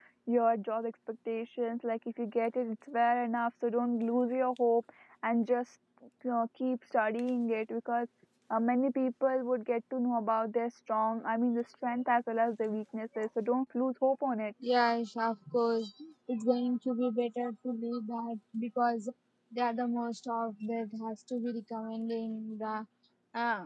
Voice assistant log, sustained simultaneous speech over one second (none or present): none